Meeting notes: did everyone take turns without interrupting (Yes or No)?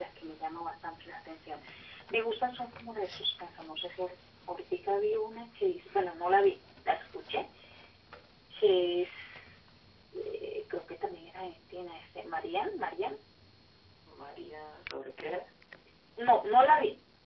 Yes